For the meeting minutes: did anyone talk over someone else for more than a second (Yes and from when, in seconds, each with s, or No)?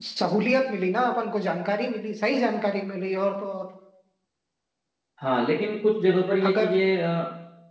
No